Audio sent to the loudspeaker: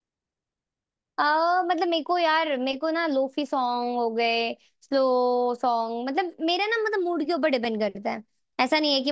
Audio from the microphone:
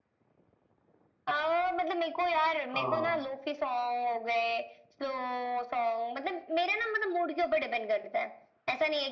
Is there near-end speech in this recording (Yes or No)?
Yes